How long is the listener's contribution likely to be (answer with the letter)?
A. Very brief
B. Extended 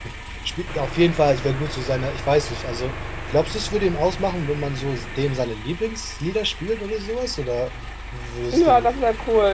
B